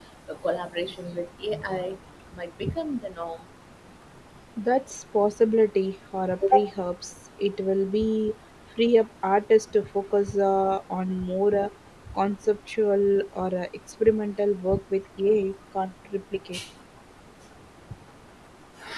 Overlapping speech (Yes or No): No